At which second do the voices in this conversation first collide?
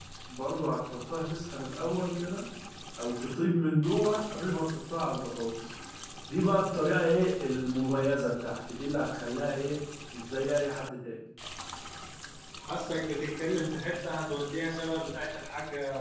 none

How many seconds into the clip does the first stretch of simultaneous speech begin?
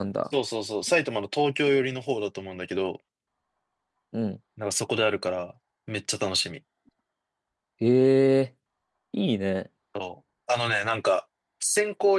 none

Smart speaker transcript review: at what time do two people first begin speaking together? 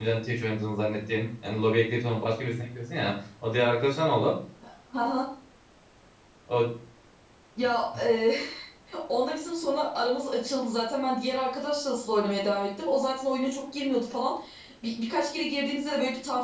none

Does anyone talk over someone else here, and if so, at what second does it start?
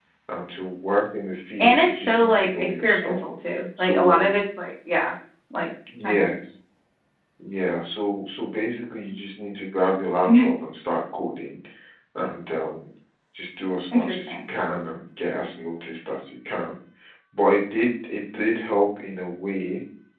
1.6 s

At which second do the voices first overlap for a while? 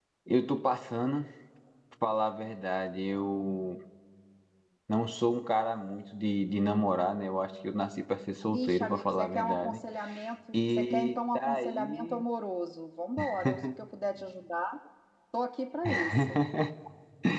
8.4 s

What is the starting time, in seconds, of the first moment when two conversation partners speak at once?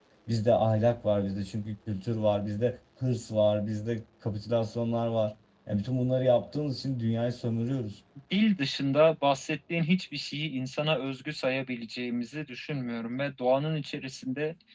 none

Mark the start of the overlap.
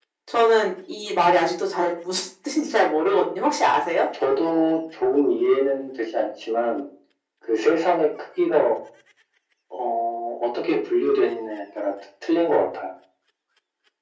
none

